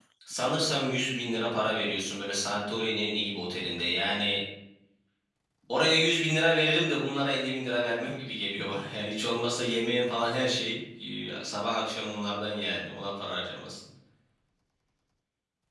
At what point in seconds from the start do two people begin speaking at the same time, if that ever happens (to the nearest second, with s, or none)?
none